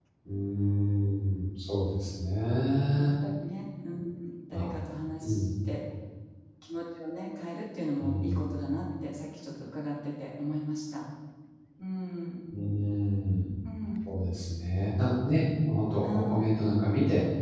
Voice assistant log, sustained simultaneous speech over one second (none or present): none